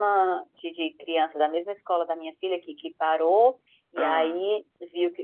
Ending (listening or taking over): listening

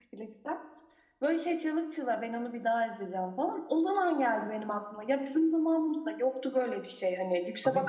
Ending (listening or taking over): listening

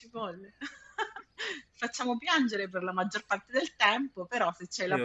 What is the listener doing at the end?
taking over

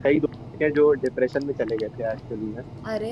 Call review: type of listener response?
listening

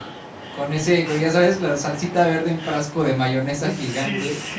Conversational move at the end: taking over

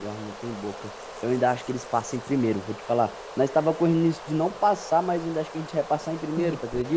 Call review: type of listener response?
taking over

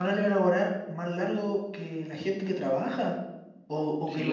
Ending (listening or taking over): taking over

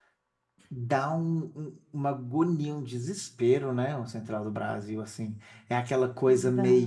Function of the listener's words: listening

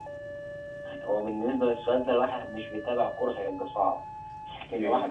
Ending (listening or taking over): listening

